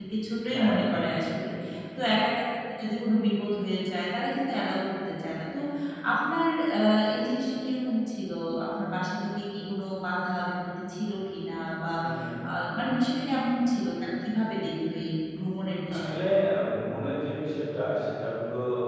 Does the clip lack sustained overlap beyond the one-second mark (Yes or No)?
Yes